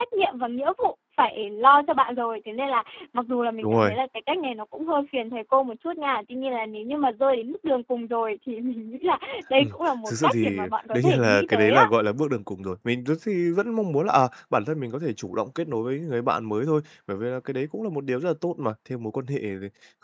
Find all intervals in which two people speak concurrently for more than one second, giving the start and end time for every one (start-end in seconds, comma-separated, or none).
10.1-11.8